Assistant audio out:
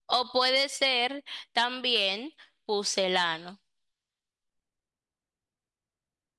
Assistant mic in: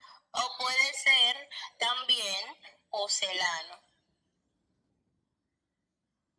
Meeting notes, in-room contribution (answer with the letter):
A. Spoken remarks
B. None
B